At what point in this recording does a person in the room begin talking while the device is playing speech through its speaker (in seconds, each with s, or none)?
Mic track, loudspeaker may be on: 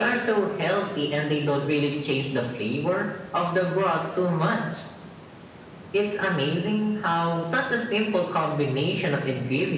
none